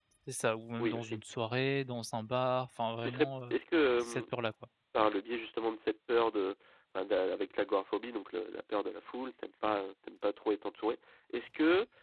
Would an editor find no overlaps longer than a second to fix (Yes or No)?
Yes